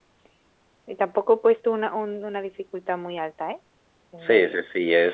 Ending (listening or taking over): taking over